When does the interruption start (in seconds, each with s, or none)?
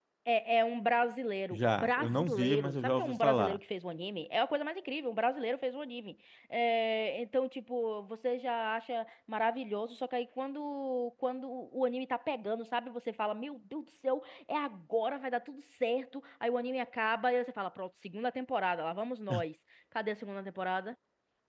1.5 s